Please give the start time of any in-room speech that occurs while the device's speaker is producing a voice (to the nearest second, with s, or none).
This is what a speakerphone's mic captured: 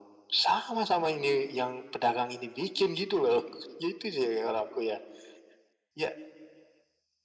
none